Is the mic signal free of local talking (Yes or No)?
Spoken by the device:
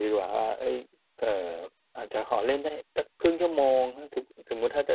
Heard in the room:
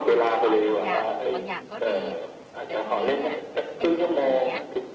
No